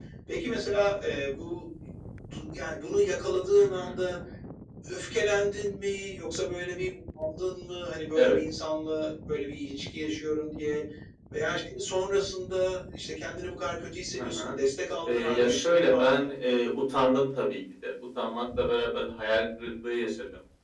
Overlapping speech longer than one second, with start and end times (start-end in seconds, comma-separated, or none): 15.1-16.3